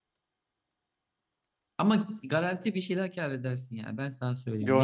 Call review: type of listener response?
taking over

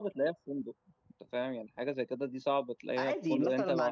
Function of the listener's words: taking over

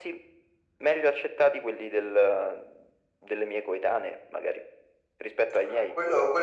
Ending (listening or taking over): taking over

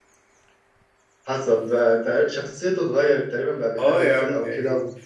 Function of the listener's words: taking over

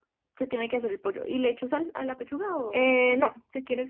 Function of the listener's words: taking over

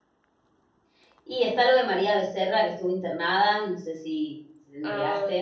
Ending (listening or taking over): taking over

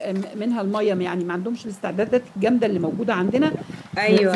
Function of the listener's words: listening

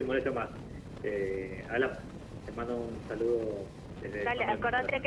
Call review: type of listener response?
taking over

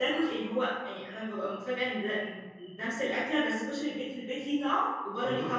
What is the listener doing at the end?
taking over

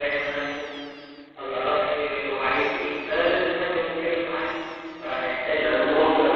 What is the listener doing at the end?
taking over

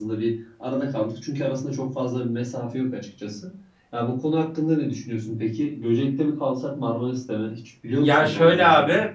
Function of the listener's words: taking over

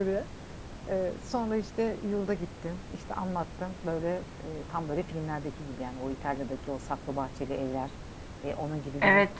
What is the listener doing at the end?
taking over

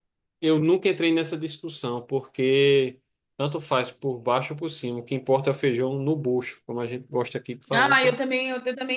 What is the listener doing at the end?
taking over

